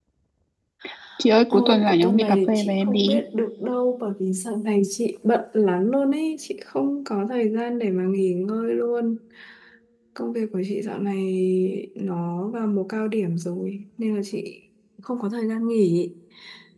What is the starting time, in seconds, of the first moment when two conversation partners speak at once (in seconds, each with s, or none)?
1.5 s